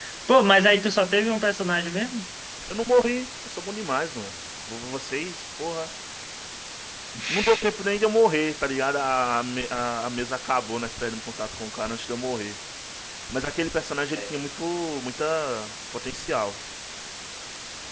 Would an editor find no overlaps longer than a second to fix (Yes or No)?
Yes